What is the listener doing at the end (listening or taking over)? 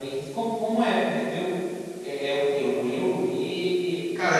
taking over